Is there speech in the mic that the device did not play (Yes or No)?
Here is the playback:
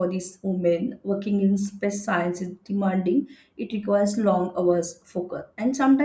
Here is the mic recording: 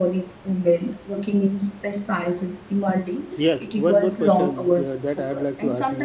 Yes